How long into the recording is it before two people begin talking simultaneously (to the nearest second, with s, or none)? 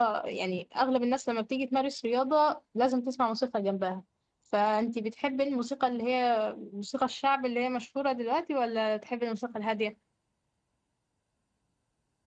none